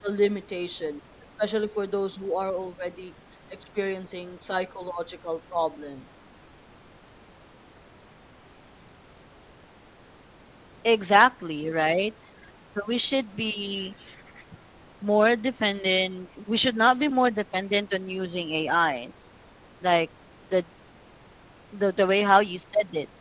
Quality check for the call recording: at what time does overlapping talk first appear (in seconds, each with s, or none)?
none